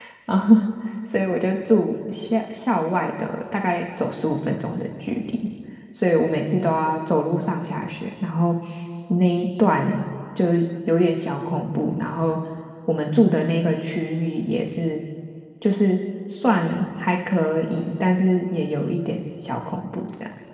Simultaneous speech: No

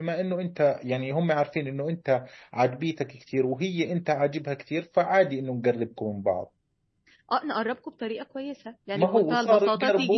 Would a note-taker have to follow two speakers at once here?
Yes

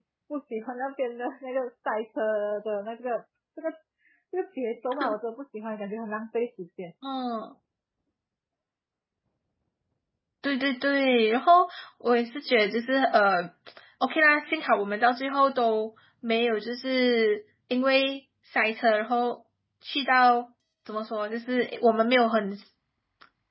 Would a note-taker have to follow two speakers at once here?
No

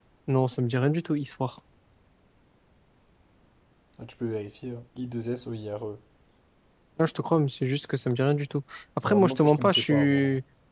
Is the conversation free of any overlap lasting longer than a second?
No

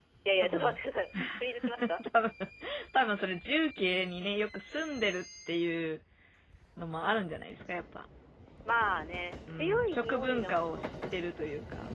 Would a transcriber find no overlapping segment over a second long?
No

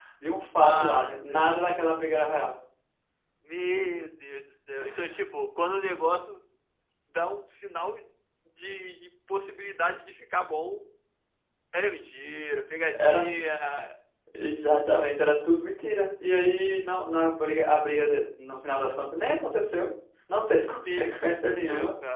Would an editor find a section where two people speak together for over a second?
Yes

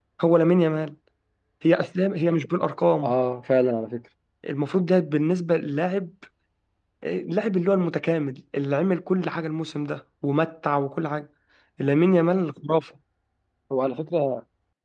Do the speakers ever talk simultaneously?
No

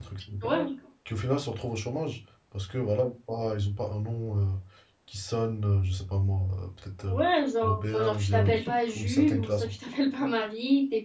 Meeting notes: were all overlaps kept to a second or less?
No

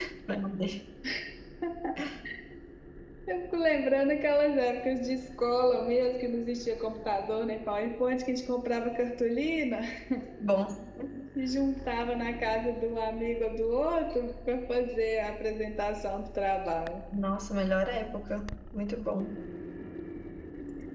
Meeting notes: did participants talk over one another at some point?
No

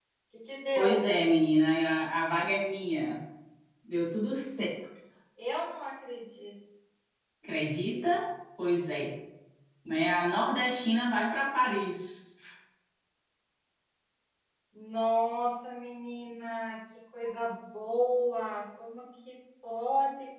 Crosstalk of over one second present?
No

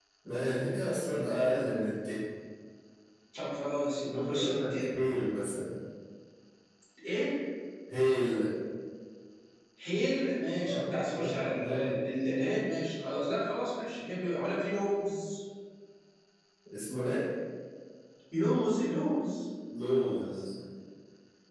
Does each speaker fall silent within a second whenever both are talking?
No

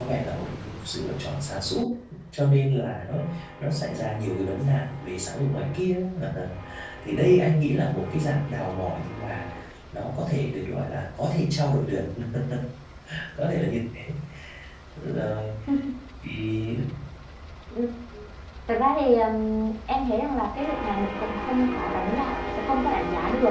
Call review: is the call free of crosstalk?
Yes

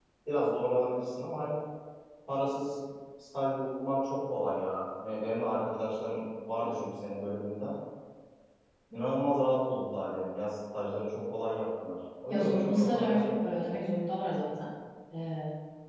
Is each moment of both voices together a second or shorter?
No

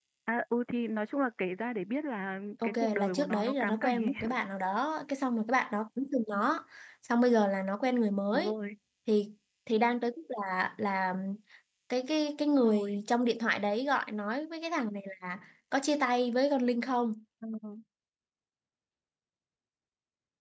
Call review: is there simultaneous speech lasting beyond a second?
Yes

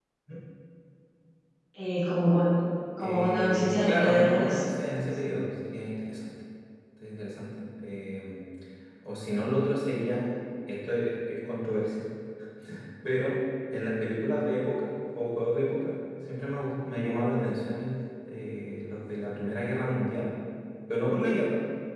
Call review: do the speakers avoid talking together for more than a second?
No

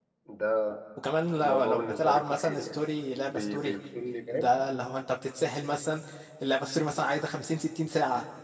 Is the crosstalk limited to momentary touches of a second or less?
No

